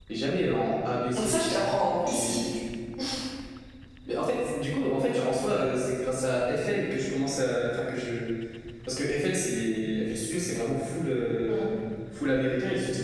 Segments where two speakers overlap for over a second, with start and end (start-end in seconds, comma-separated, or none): none